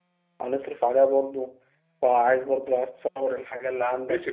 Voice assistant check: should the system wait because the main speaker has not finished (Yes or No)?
No